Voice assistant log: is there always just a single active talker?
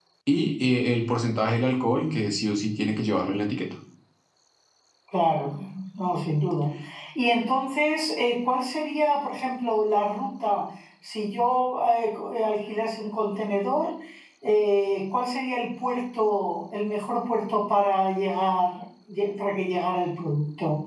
Yes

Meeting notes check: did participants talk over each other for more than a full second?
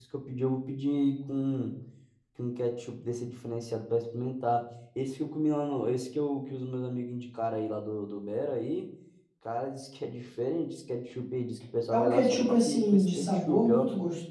Yes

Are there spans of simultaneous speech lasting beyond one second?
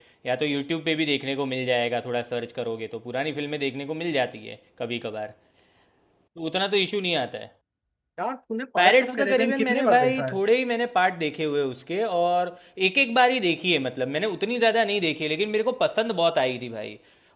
Yes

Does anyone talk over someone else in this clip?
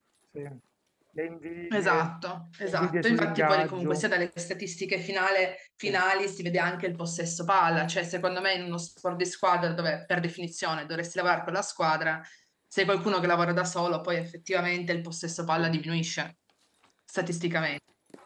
Yes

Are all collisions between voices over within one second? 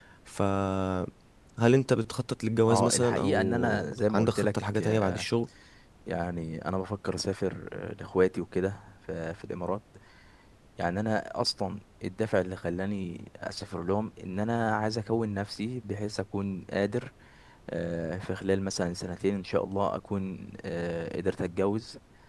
No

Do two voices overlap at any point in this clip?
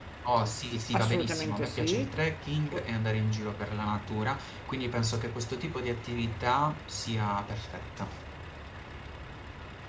Yes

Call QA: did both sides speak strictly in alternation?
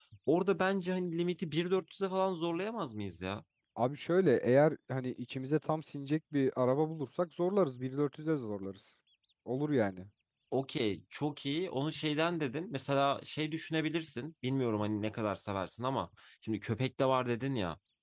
Yes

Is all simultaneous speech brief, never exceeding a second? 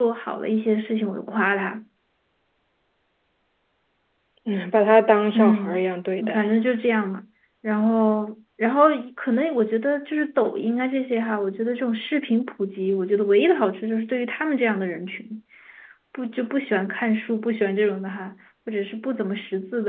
Yes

